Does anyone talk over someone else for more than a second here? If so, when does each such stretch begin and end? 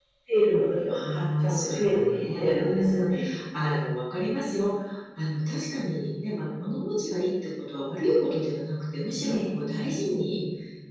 0.9-3.1

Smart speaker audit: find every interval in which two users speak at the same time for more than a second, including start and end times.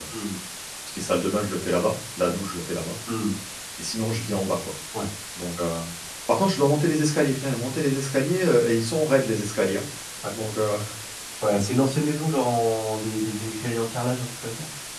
none

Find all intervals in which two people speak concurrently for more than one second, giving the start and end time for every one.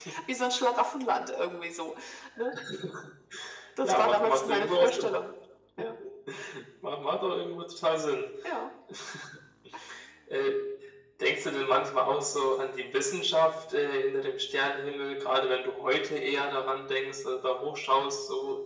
3.8-5.1

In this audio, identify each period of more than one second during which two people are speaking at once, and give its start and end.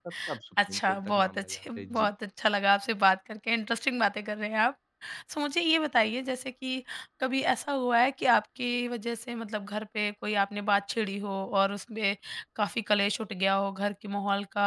0.7-2.1

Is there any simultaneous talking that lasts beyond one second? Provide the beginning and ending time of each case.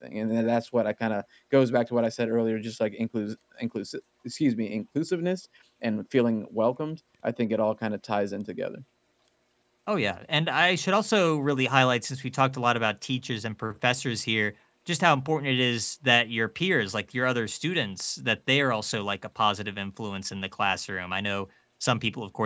none

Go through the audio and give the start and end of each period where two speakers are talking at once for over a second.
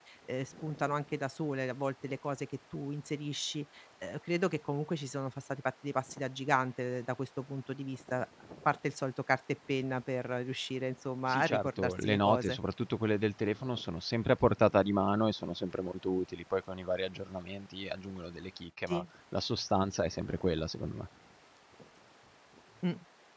11.3-12.6

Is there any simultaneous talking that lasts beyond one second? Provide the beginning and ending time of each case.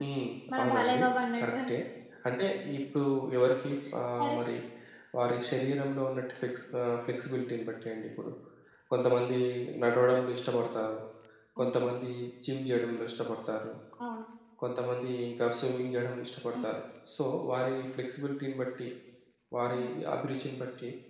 none

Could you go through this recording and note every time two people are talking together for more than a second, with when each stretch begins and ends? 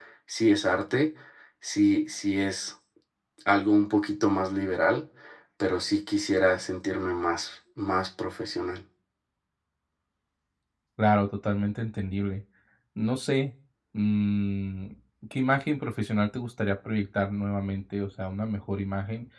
none

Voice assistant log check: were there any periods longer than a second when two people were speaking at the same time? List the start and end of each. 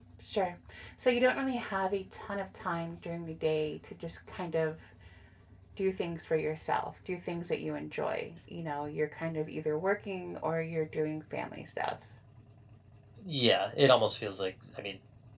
none

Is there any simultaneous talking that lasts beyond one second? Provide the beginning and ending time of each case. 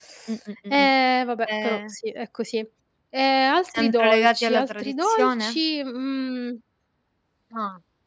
3.7-5.6

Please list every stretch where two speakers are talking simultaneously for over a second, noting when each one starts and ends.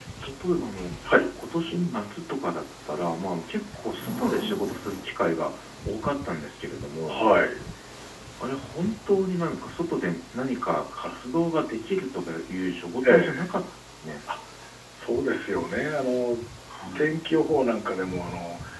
none

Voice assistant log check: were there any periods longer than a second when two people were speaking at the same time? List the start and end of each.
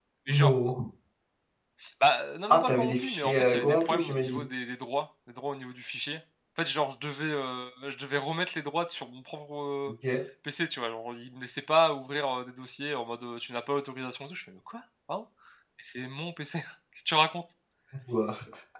2.5-4.5

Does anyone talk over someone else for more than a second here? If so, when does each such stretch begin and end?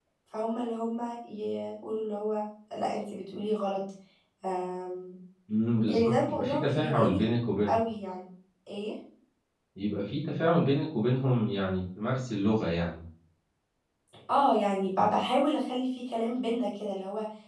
5.9-7.2

